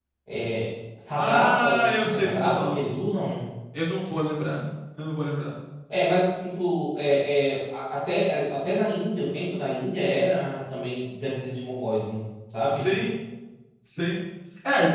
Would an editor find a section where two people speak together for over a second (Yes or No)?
Yes